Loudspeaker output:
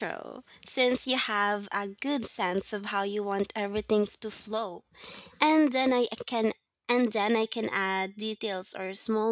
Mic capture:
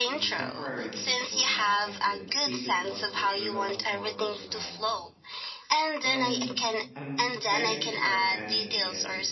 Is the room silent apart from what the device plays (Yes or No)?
No